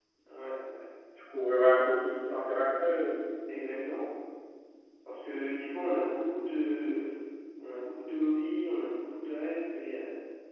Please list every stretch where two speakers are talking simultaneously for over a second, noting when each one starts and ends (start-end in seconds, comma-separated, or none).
none